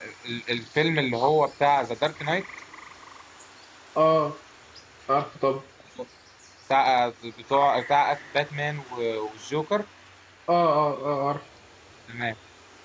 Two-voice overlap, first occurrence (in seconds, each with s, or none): none